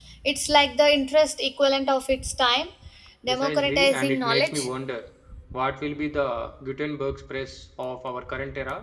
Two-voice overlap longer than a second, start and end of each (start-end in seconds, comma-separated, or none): 3.3-4.7